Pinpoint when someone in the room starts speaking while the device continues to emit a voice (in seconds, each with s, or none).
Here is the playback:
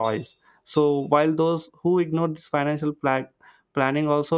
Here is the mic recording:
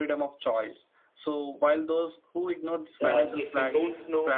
3.0 s